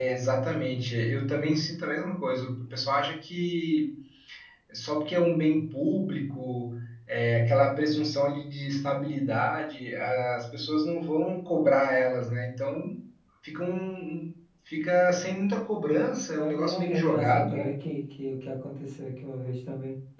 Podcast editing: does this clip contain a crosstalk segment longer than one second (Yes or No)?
Yes